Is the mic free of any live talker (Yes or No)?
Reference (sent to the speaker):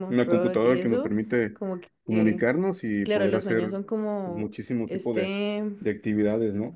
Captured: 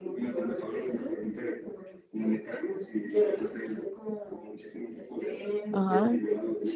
No